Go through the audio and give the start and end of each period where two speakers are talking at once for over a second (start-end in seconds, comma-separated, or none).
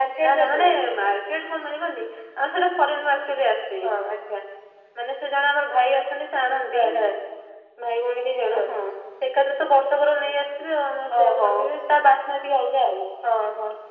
none